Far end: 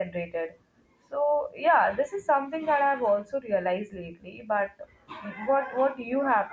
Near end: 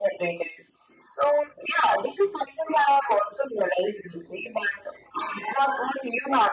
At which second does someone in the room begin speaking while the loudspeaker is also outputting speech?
none

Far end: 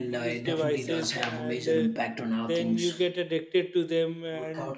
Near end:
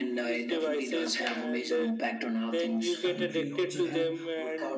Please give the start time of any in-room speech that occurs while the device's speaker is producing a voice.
3.0 s

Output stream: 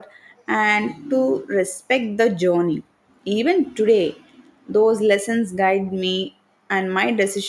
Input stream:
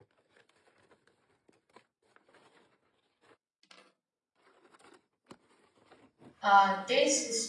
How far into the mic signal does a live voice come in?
6.4 s

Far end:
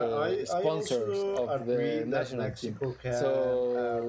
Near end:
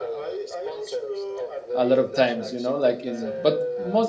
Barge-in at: 1.7 s

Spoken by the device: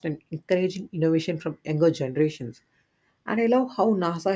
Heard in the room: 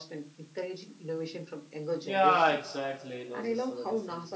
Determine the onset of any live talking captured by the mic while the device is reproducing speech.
2.0 s

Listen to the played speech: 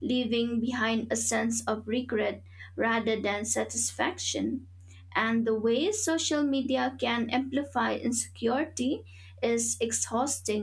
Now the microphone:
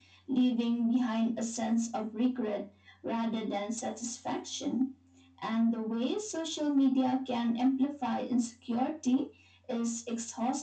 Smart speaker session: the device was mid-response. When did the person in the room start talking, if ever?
none

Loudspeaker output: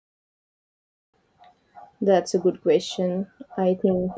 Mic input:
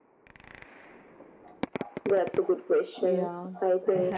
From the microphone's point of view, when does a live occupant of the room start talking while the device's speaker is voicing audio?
3.0 s

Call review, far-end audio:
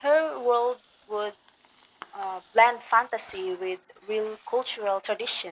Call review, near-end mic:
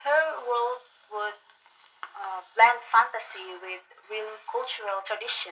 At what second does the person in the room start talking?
none

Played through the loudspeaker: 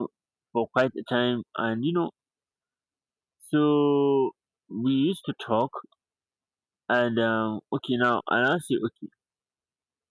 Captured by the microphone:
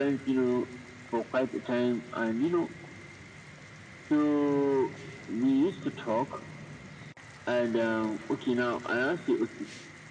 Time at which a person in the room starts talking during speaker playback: none

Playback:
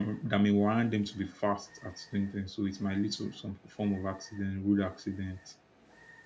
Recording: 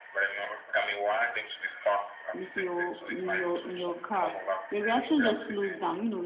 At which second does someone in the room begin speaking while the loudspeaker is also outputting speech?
2.3 s

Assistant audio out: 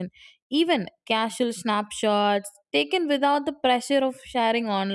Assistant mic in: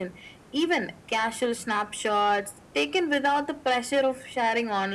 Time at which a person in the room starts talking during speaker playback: none

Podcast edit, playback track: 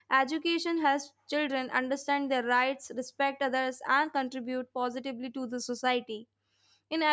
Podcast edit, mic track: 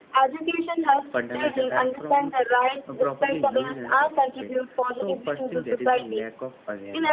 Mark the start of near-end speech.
1.1 s

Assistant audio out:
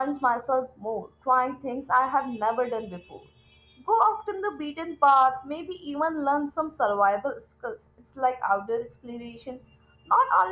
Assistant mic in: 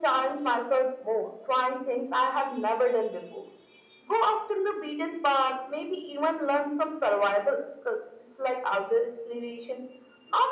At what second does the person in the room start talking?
none

